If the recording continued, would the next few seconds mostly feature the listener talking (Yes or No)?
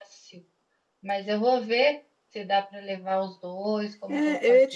Yes